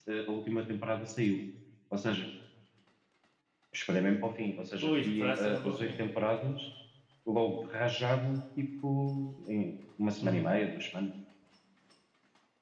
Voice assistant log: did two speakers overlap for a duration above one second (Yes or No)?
Yes